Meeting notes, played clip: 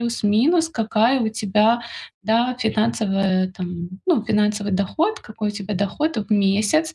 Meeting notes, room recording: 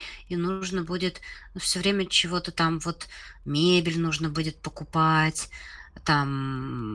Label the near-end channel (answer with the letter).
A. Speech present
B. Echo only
A